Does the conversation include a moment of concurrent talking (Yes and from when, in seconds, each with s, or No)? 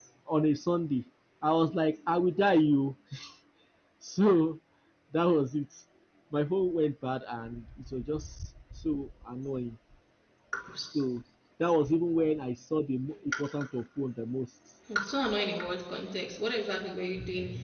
No